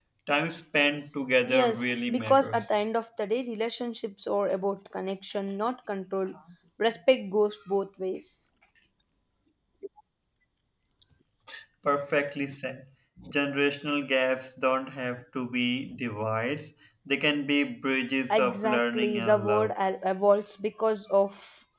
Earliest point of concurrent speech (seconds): 1.5 s

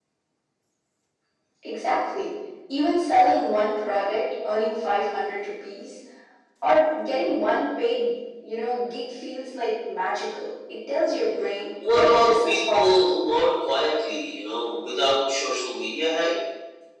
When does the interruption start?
11.8 s

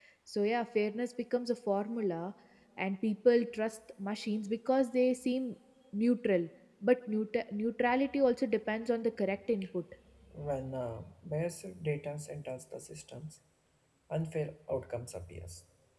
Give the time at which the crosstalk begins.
none

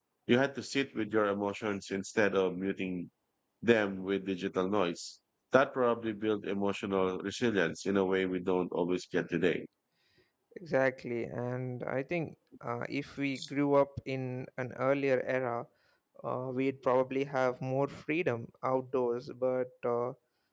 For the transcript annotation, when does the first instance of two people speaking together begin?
none

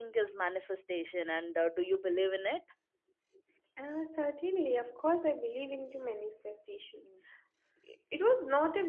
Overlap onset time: none

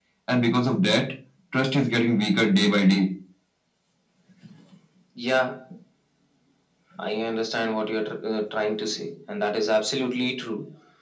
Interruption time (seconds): none

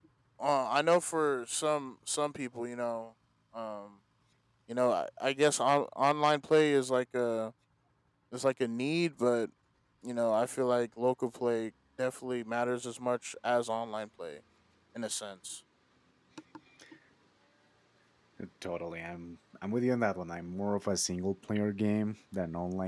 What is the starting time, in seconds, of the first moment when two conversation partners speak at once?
none

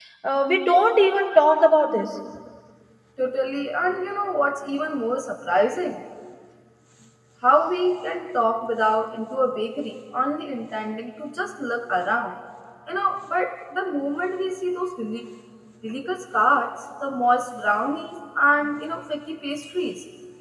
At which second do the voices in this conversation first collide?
none

